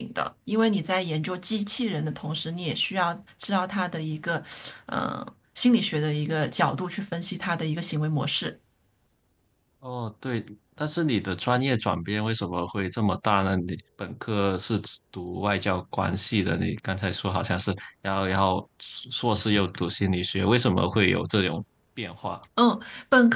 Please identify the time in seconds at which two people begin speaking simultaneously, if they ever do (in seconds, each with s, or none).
none